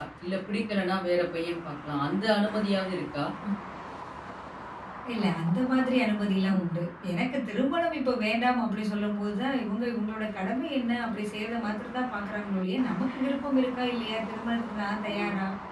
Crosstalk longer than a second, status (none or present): none